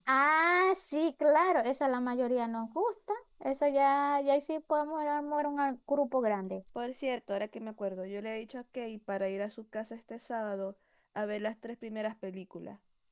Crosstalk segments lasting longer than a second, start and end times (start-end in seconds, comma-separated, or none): none